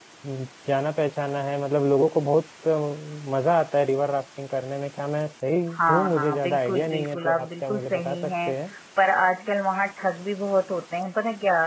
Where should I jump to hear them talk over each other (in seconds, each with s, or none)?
5.7 s